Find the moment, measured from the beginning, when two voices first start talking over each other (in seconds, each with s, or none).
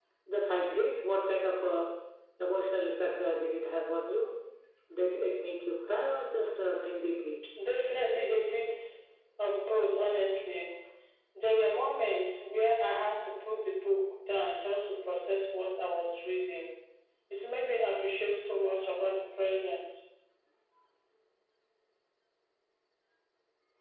none